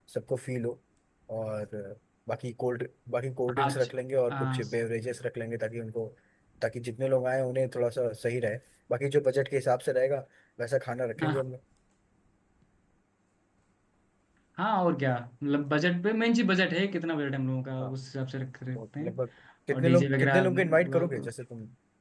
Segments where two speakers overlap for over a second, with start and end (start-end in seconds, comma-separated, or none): 19.7-21.3